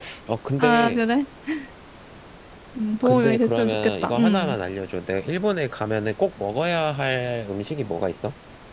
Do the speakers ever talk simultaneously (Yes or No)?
Yes